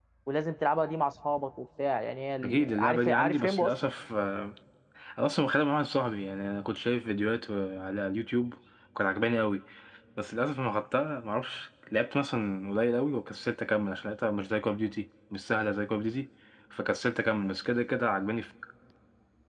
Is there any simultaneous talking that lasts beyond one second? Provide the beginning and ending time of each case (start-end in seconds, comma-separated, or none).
2.4-3.9